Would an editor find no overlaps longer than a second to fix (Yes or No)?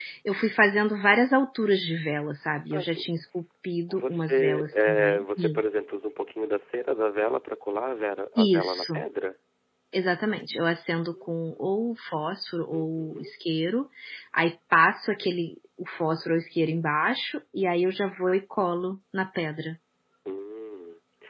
No